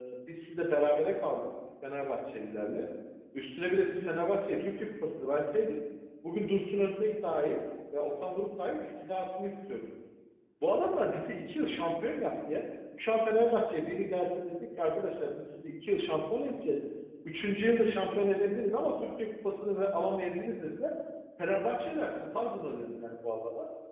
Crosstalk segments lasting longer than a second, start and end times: none

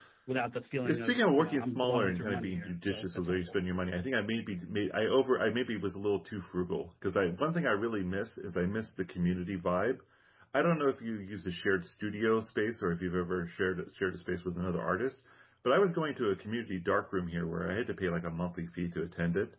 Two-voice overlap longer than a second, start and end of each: 0.8-3.6

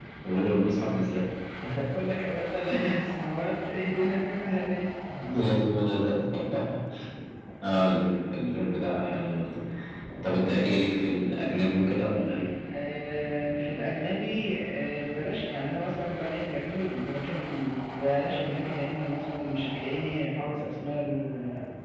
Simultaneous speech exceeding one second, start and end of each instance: none

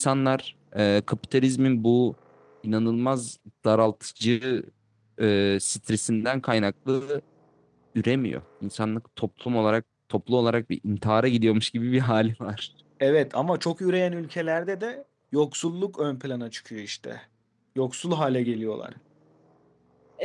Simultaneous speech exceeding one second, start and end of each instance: none

